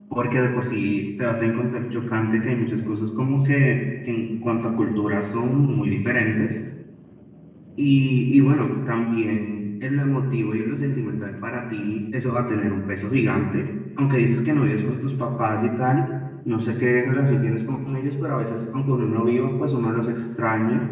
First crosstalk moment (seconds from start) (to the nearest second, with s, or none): none